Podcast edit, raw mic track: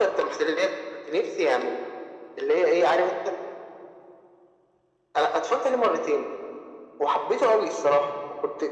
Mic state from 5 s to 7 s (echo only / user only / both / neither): echo only